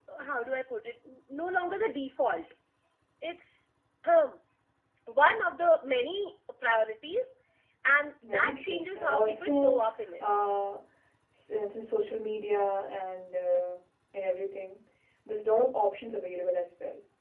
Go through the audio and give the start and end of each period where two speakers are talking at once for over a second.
8.2-9.8

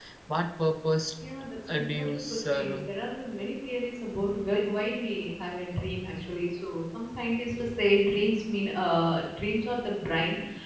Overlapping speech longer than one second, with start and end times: 1.7-2.9

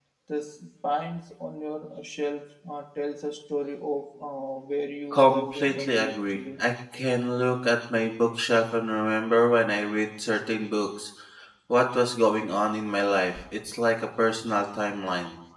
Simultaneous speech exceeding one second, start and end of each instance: 5.1-6.6

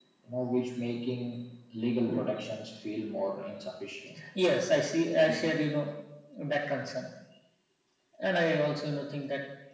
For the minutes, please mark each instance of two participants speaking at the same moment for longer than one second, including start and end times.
none

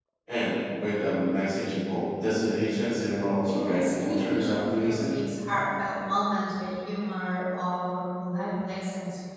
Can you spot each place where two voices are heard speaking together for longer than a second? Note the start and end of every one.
3.5-5.2

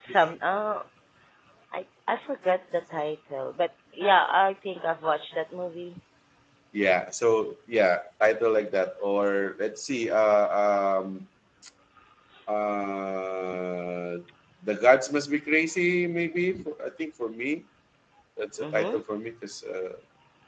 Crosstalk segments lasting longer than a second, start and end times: none

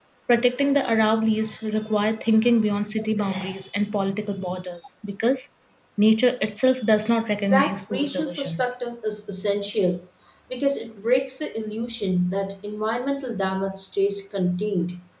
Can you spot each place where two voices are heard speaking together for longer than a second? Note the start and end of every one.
7.5-8.7

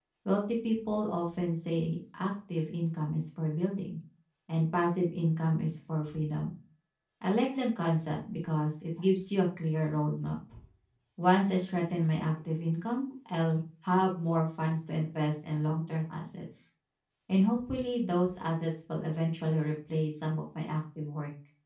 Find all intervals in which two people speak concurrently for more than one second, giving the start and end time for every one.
none

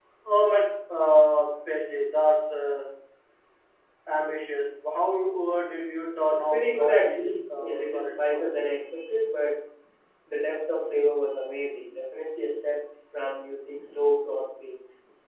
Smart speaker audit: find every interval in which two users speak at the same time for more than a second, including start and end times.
6.3-8.6

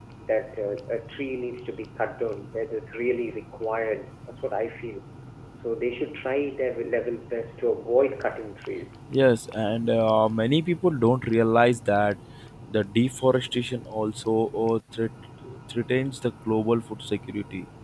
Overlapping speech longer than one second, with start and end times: none

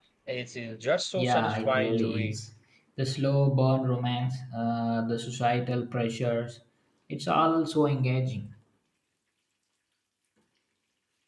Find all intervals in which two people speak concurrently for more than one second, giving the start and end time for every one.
1.1-2.4

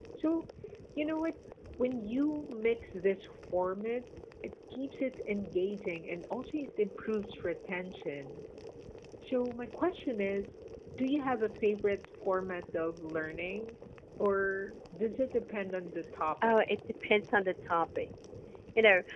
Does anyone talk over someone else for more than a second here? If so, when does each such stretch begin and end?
none

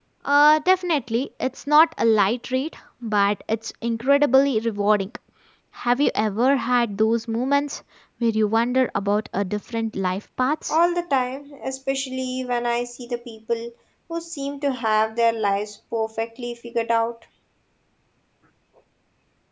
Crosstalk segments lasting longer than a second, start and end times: none

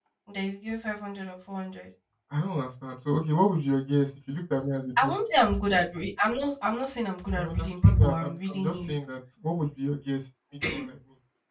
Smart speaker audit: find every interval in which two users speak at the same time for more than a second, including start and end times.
7.4-8.9

